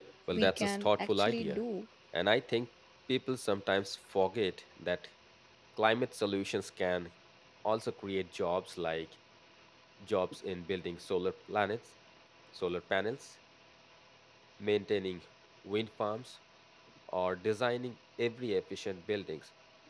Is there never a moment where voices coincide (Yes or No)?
No